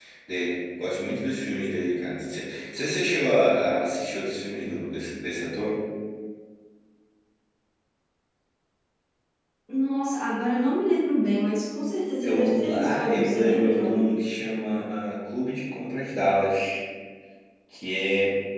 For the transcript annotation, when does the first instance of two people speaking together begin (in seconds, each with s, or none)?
12.2 s